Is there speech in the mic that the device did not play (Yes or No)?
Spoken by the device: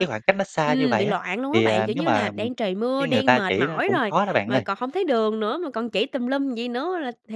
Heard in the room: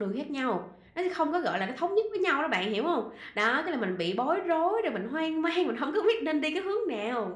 Yes